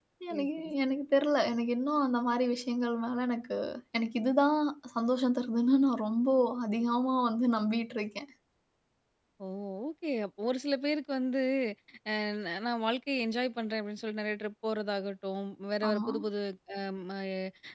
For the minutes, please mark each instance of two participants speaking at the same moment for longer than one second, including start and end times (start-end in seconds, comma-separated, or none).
none